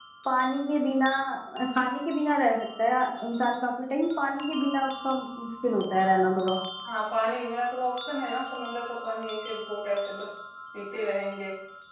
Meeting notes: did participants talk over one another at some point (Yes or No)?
No